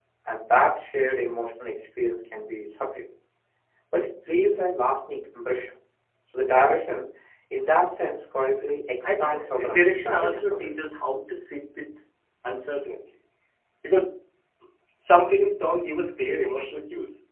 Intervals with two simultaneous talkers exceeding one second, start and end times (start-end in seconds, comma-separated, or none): 9.0-10.7